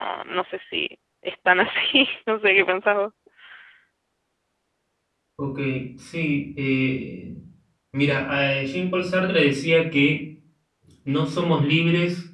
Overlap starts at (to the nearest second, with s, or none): none